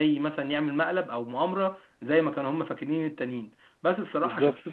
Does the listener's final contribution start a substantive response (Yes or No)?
No